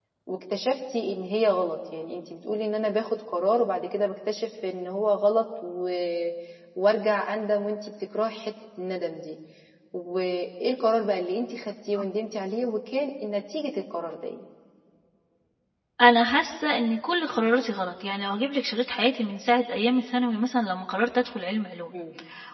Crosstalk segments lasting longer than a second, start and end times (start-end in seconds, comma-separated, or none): none